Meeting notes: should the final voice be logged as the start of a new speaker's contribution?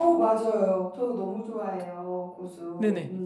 Yes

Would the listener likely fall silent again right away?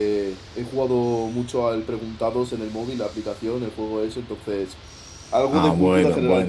No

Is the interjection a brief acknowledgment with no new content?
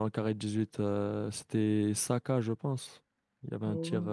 No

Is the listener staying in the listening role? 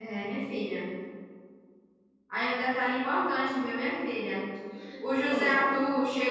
Yes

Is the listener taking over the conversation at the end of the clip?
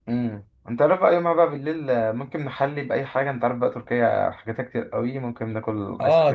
Yes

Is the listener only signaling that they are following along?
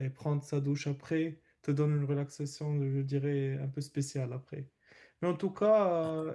Yes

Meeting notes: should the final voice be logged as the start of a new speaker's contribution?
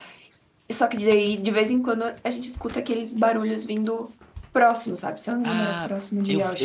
Yes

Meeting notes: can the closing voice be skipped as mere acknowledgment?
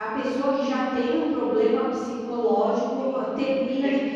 No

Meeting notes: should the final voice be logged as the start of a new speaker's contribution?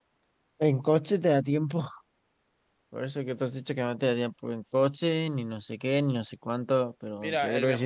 Yes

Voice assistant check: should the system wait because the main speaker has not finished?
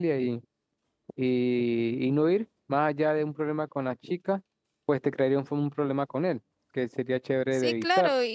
No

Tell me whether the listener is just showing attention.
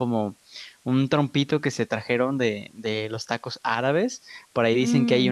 Yes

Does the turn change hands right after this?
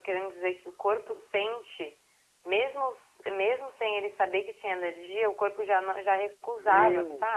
Yes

